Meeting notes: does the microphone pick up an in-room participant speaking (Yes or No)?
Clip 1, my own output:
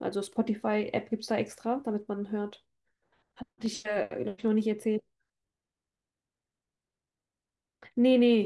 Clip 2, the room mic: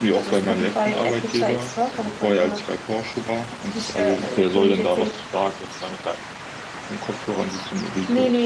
Yes